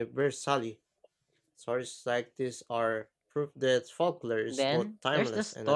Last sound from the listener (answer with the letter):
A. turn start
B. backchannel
A